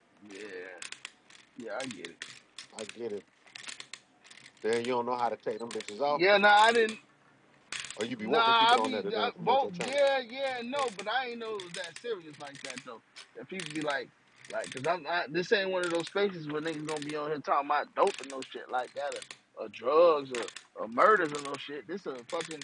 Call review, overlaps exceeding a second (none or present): present